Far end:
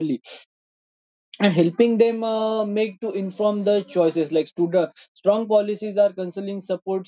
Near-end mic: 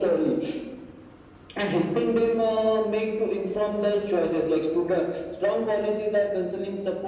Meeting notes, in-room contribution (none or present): none